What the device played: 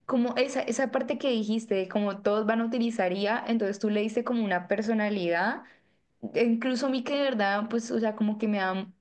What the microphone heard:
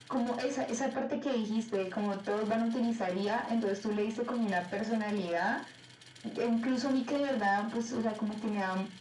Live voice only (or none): none